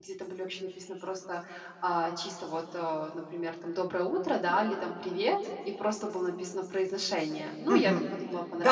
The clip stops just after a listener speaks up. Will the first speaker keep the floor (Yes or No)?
No